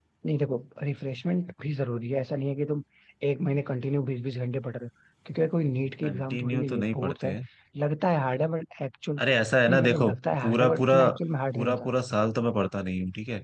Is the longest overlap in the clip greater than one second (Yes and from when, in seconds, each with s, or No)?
Yes, from 6.0 s